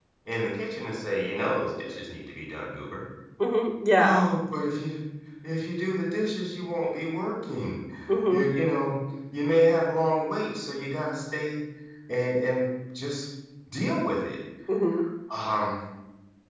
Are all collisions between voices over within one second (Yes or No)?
Yes